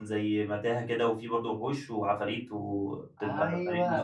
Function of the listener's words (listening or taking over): taking over